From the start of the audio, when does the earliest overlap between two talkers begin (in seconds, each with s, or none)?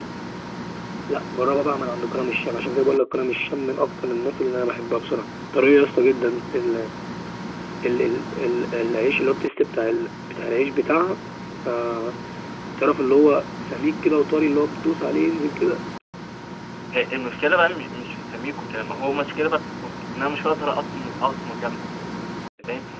none